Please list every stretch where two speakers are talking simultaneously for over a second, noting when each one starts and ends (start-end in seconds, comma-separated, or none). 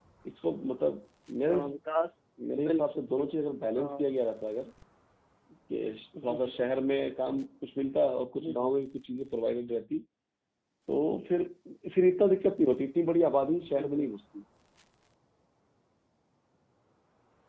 2.6-3.9